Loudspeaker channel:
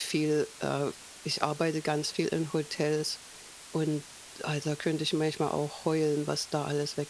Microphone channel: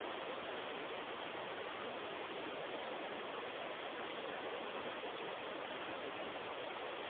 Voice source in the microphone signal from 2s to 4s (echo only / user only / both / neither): neither